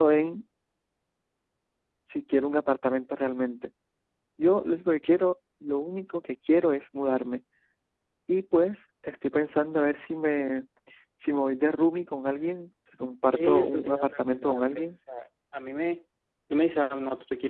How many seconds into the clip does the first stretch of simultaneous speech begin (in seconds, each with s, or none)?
13.3 s